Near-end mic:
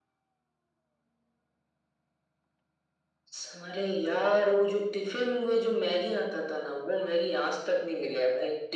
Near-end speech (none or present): none